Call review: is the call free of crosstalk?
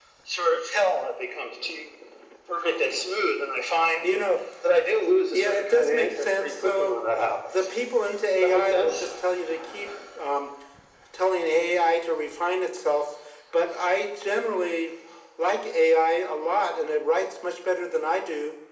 No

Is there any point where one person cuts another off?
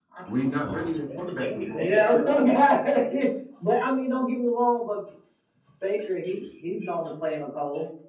Yes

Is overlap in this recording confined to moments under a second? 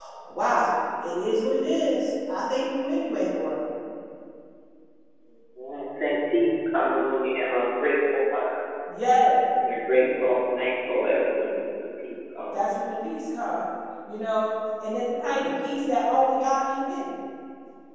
Yes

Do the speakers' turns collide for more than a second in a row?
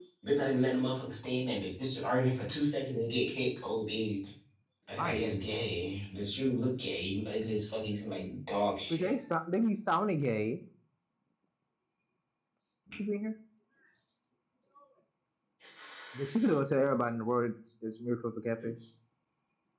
No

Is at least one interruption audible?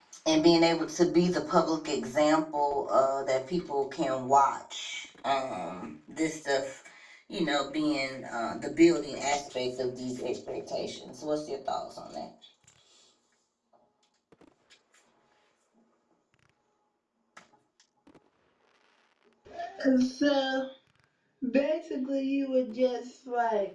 No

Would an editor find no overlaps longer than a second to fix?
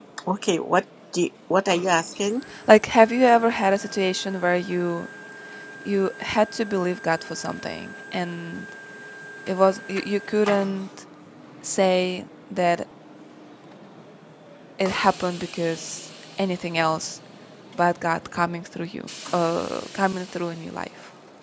Yes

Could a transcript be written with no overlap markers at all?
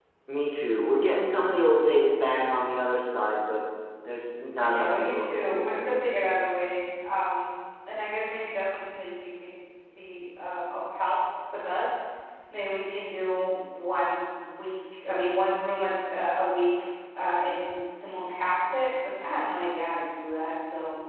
No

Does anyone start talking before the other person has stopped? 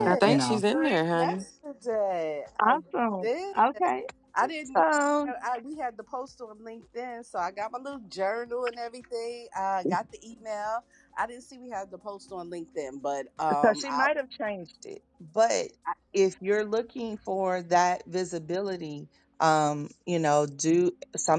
Yes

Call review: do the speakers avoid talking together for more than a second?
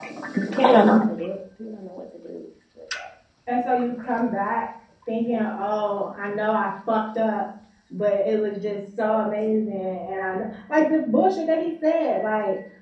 Yes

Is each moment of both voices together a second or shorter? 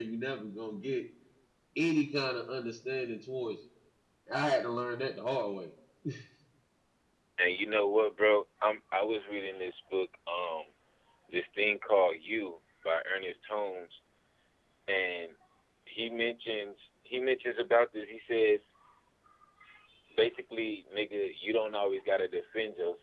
Yes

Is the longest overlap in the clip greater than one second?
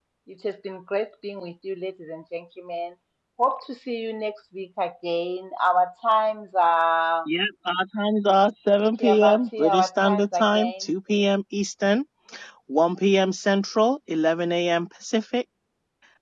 Yes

